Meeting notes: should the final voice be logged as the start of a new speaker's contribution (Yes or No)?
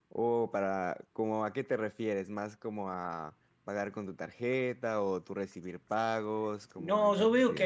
Yes